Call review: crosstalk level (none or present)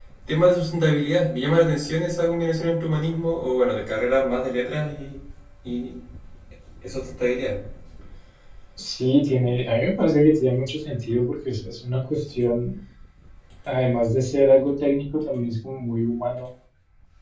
none